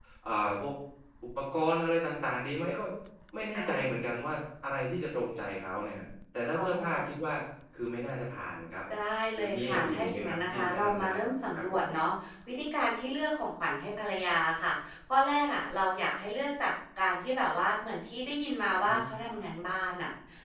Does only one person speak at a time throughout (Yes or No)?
No